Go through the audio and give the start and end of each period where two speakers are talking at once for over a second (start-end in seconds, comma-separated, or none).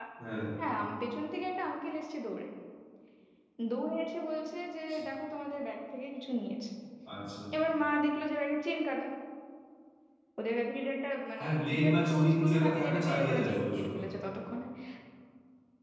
11.4-14.0